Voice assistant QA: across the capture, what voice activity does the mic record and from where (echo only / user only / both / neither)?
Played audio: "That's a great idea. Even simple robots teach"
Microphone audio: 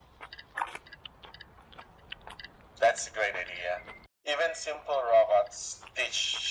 echo only